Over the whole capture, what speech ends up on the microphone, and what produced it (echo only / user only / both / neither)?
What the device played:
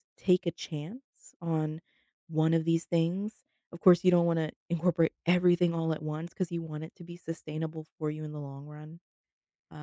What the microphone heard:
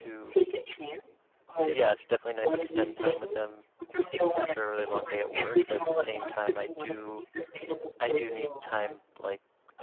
both